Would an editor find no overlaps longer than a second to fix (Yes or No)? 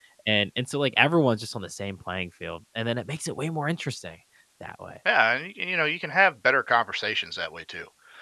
Yes